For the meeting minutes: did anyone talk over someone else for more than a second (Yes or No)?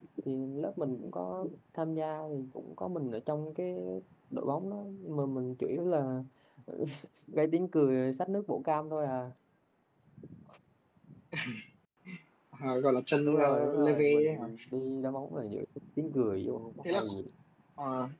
Yes